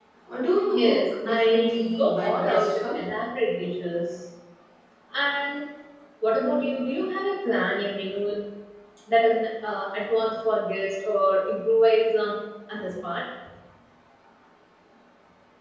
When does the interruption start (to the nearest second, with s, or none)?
1 s